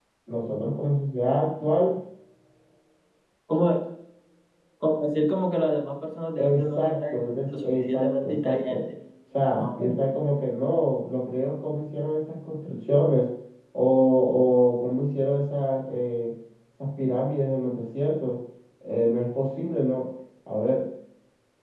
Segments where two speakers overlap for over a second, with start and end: 6.4-8.8

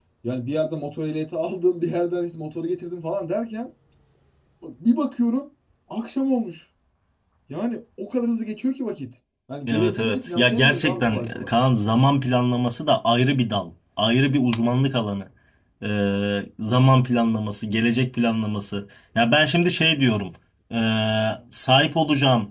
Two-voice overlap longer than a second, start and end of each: 9.7-11.5

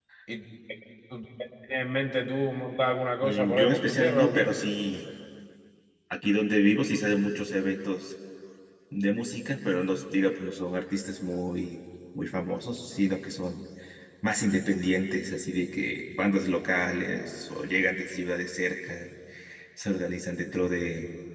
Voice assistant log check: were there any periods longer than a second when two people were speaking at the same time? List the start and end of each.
3.2-4.5

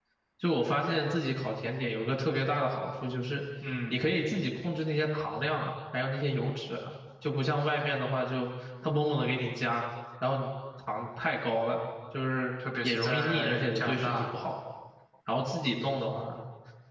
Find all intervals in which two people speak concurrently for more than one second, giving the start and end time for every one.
12.8-14.2

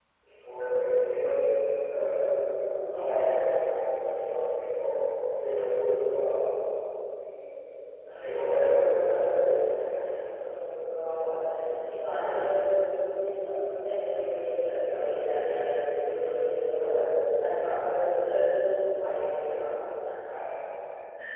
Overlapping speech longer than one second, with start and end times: 8.1-9.3

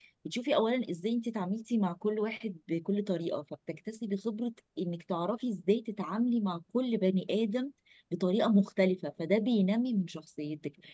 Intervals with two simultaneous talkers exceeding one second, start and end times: none

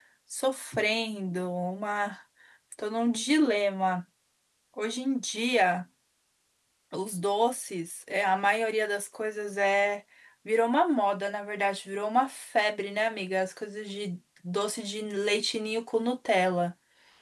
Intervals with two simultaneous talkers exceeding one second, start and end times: none

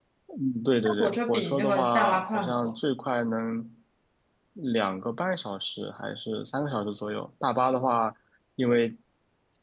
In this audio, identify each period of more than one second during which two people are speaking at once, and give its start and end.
0.8-2.7

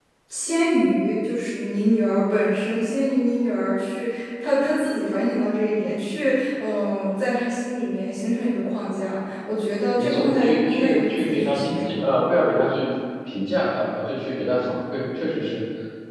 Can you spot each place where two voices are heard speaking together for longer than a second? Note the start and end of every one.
10.0-12.0

